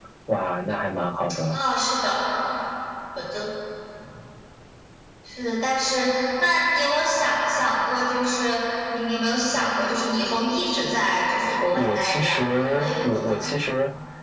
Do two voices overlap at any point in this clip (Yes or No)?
Yes